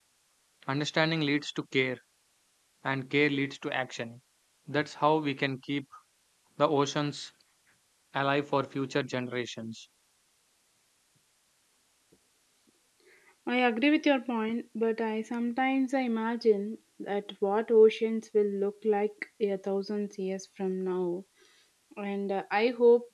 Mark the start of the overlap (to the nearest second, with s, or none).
none